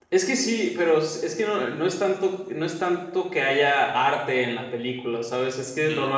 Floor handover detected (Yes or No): No